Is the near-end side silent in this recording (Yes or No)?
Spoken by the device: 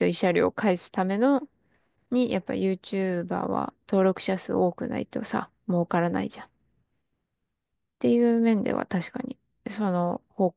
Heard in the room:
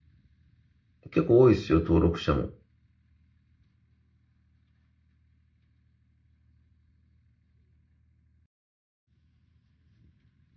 No